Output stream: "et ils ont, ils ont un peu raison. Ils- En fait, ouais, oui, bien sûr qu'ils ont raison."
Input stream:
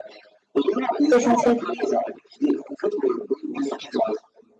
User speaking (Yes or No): Yes